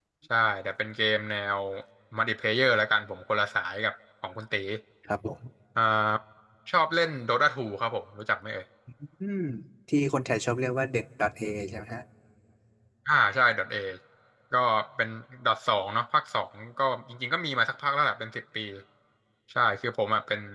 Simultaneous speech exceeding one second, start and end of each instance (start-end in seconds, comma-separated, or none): none